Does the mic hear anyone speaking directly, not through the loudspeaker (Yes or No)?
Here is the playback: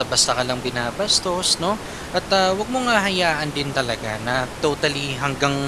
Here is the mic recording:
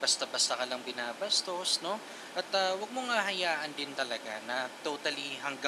No